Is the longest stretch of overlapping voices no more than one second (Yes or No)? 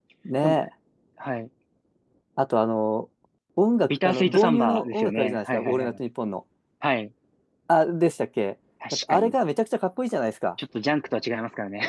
No